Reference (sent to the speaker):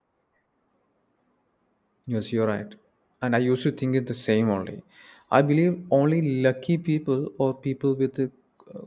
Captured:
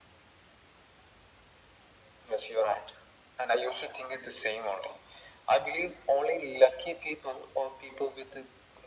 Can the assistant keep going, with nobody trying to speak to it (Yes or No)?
Yes